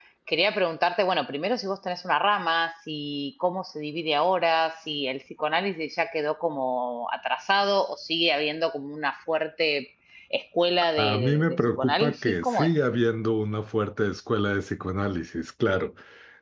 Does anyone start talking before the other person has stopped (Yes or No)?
Yes